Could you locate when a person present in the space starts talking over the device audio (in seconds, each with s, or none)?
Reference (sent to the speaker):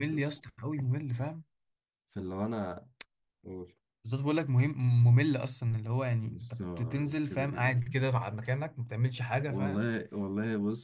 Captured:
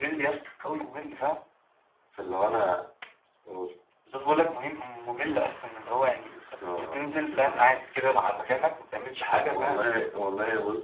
none